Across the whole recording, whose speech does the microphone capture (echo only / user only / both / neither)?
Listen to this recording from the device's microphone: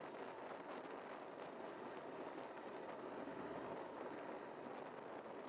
neither